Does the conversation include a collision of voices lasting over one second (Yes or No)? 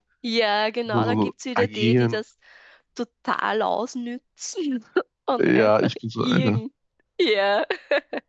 Yes